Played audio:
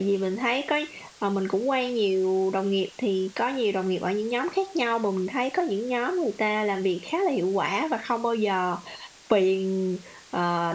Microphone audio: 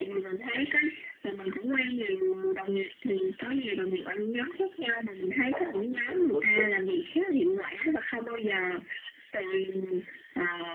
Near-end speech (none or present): present